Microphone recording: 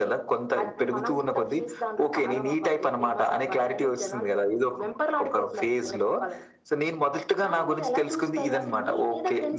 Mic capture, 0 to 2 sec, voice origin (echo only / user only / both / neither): echo only